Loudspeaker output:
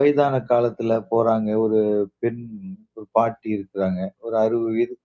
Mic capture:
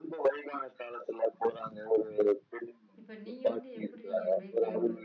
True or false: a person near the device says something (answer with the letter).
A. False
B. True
B